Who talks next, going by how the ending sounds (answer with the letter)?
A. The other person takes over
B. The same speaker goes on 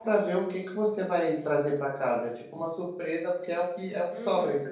A